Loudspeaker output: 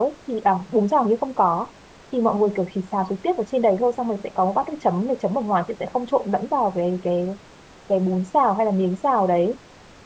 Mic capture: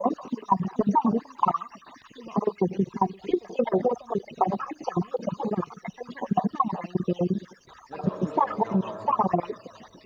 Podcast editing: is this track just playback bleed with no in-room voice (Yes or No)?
No